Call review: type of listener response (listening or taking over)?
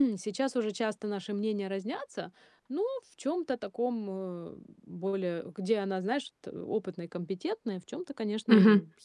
taking over